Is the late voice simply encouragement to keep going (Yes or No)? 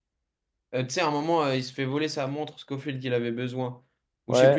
No